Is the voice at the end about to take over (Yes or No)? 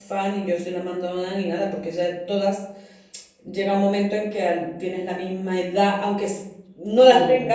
No